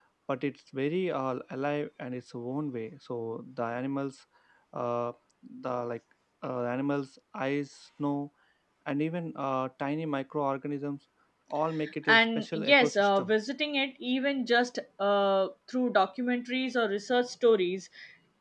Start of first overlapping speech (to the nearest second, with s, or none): 12 s